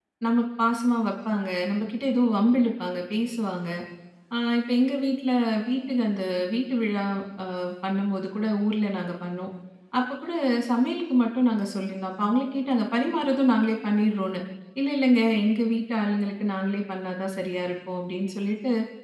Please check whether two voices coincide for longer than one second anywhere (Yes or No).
No